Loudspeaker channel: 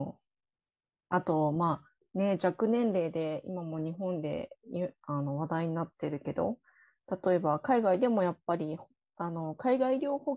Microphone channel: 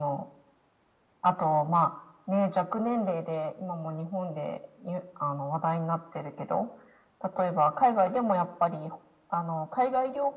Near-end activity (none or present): none